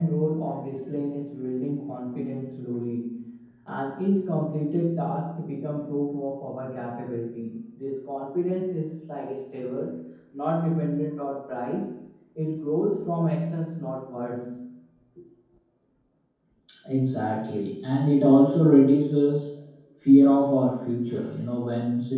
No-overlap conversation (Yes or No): Yes